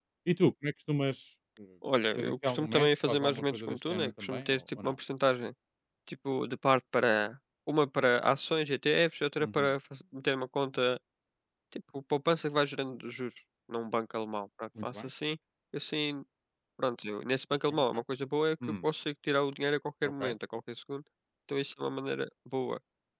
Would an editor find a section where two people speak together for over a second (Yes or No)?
Yes